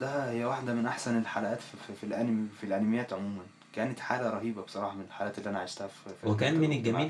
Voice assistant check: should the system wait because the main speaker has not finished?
No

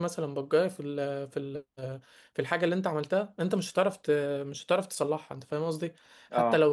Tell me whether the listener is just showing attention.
Yes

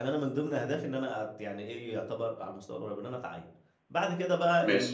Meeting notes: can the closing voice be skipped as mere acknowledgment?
Yes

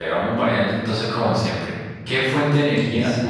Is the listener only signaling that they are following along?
Yes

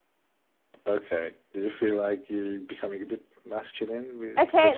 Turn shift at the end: Yes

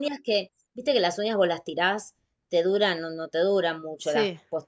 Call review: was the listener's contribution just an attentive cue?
Yes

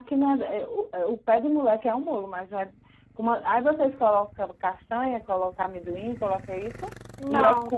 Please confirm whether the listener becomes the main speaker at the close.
No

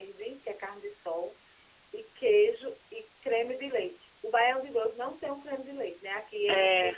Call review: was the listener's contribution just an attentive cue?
Yes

